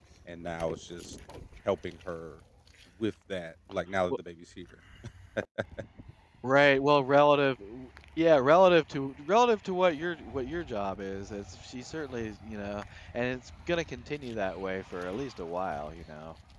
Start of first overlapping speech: none

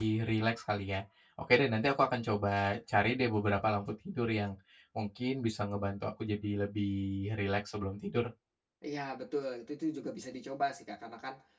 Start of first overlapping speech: none

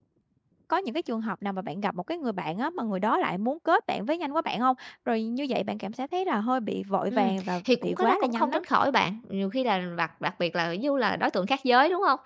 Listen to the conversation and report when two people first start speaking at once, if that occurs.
7.1 s

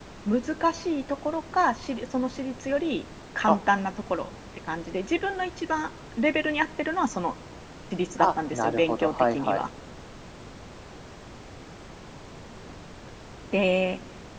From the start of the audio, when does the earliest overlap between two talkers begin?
8.2 s

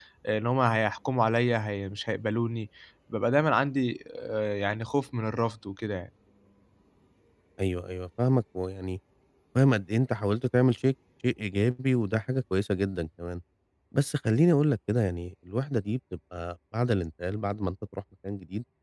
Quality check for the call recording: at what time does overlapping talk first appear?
none

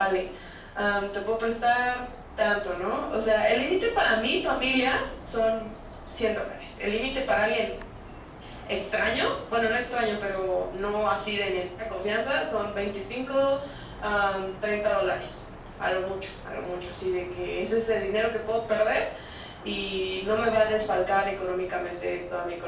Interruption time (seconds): none

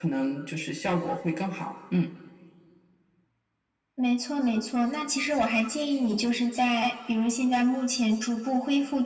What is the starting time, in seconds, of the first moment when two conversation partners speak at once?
none

